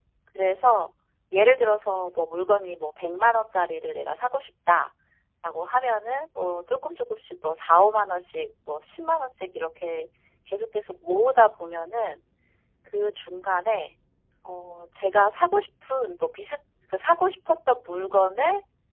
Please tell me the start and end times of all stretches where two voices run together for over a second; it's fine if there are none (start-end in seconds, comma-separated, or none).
none